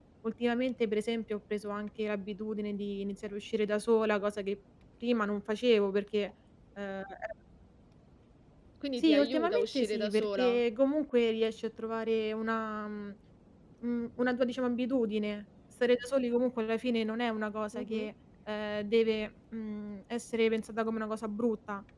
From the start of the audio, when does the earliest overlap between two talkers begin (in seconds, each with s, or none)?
9.0 s